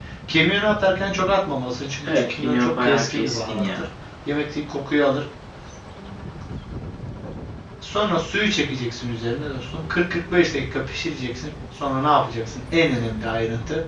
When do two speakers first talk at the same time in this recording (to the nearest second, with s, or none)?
2 s